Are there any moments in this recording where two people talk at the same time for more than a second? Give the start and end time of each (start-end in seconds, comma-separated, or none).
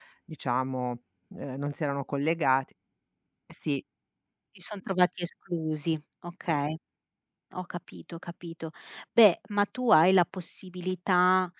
none